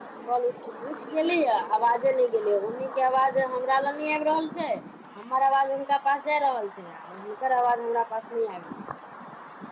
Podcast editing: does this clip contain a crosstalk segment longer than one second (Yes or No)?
No